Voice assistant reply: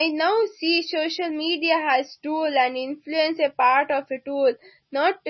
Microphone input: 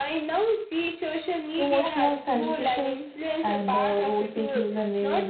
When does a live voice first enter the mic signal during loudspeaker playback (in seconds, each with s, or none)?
1.6 s